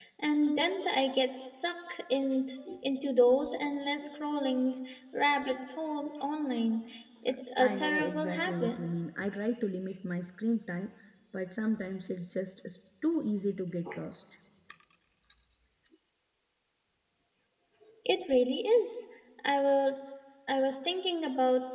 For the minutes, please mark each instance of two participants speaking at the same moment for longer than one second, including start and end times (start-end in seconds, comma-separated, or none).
7.6-8.8